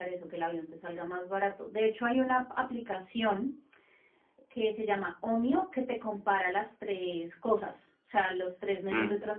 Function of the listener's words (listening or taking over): listening